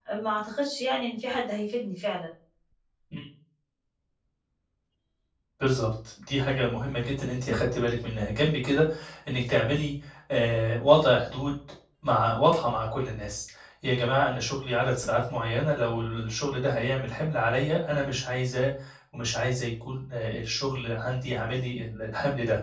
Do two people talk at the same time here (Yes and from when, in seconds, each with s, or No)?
No